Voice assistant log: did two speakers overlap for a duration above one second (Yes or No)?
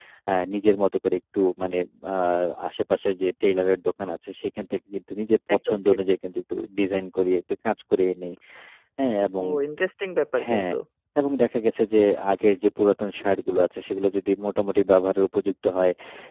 No